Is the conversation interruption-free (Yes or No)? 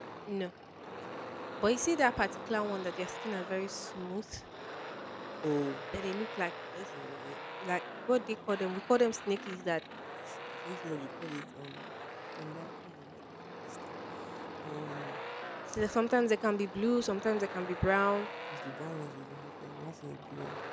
Yes